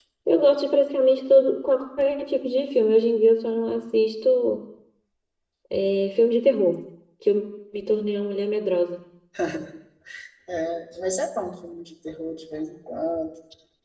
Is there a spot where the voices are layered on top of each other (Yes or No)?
No